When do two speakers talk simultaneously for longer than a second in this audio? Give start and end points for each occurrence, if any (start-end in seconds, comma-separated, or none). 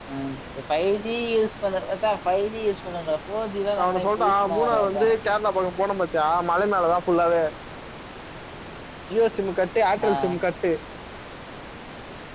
3.8-5.0